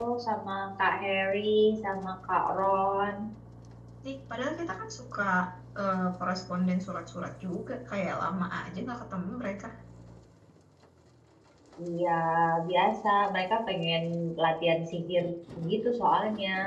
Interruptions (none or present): none